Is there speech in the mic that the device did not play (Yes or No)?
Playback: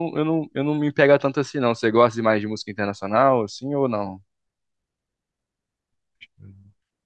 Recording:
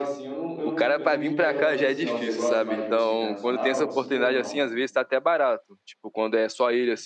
Yes